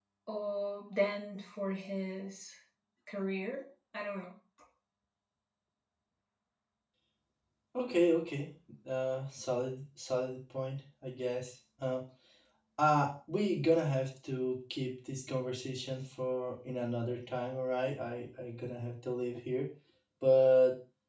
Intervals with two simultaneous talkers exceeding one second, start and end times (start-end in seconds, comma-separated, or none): none